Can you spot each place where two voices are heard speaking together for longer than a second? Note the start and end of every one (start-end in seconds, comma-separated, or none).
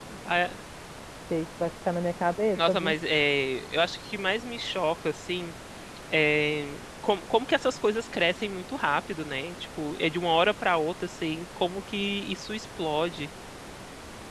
none